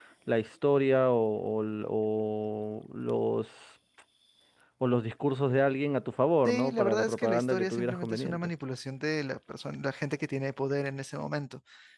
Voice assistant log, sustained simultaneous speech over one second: present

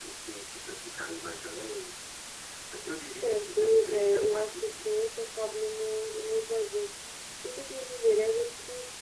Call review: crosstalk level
present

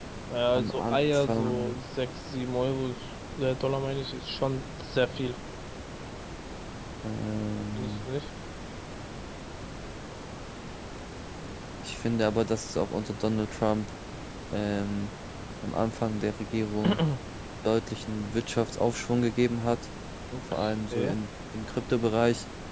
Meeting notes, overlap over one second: present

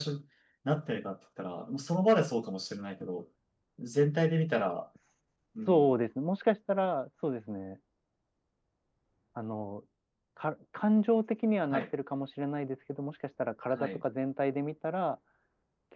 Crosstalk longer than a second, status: none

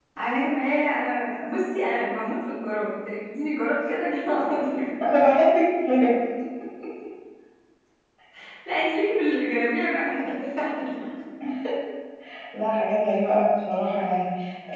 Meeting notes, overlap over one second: none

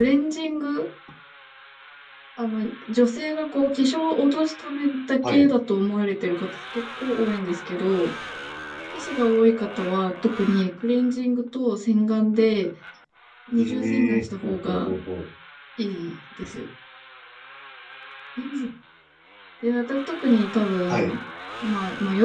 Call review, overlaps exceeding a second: present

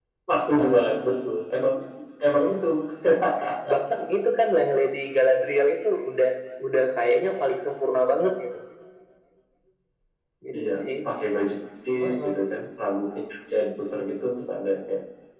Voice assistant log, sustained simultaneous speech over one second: none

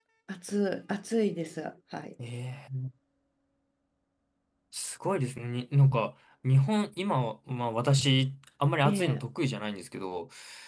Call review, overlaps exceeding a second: none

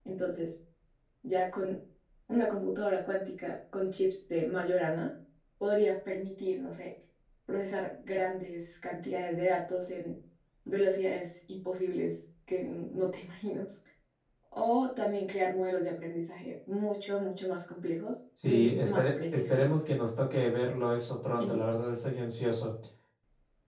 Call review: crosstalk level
present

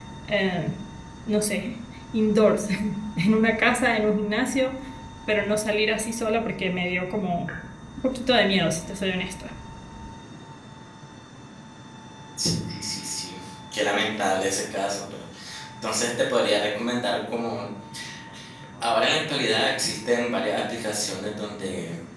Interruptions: none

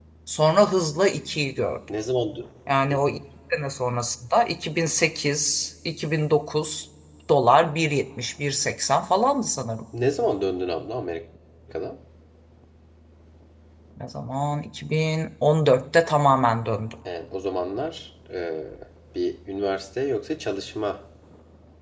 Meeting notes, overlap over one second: none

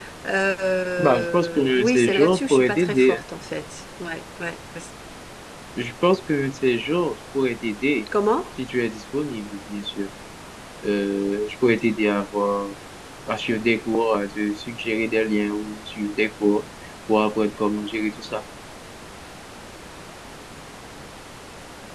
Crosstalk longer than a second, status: present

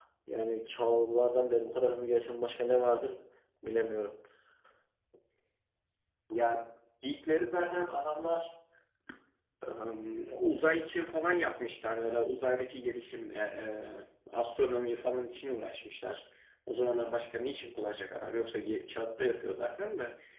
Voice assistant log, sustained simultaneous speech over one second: none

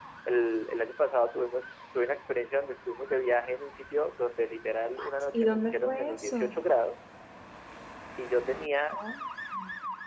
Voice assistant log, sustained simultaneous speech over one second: present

